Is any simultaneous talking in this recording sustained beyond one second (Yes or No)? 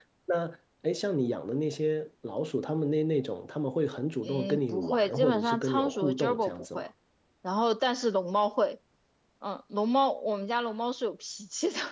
Yes